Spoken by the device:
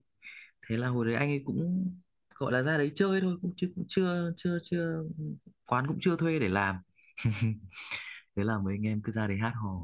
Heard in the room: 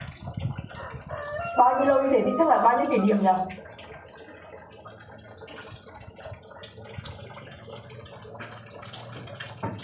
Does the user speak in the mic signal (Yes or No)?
Yes